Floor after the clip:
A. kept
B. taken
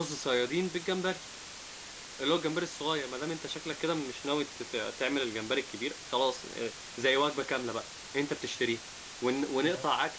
A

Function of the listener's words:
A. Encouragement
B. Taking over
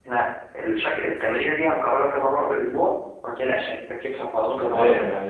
B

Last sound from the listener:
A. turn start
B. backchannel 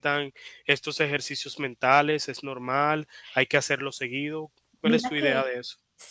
A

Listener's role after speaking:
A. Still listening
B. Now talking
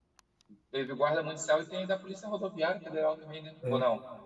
B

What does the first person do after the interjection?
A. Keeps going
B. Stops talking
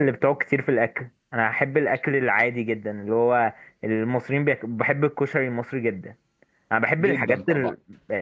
A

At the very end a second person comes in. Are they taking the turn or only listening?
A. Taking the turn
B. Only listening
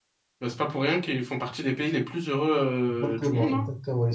A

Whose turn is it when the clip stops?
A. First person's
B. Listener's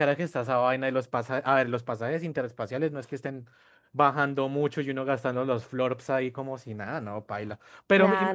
A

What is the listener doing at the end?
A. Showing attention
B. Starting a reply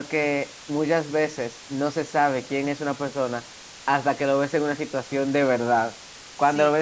A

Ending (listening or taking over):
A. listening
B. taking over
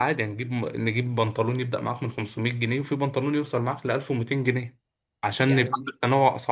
A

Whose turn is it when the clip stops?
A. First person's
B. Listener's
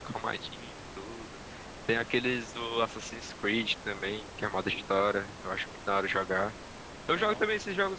A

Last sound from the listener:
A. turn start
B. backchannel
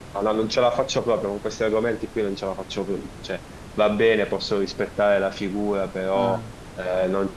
B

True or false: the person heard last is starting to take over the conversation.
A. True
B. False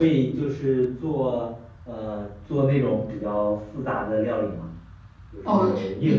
A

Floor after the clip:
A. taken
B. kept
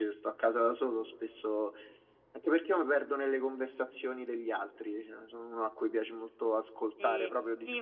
A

